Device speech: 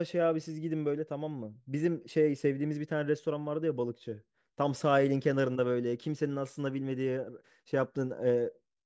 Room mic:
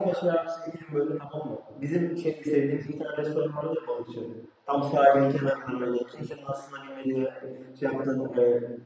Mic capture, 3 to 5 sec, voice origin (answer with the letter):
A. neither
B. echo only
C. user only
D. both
B